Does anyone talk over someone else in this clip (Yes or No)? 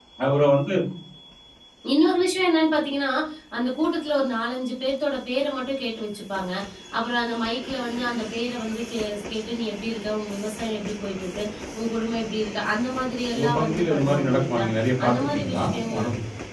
Yes